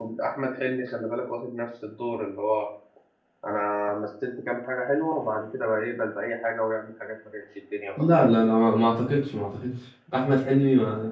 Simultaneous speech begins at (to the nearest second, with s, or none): none